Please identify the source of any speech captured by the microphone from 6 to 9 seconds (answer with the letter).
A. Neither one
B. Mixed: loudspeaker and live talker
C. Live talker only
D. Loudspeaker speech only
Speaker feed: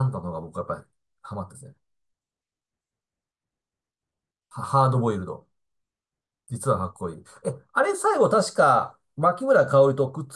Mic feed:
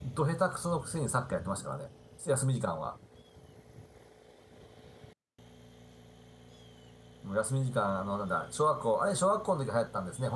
C